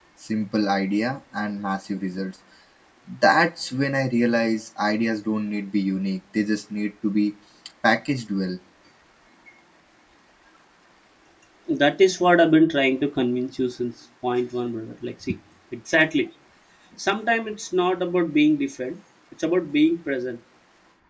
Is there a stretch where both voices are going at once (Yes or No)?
No